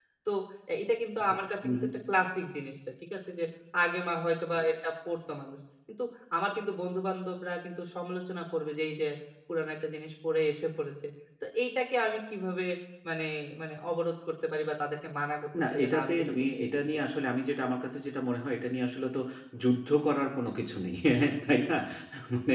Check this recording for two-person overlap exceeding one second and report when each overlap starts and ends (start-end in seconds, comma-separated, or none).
15.6-17.0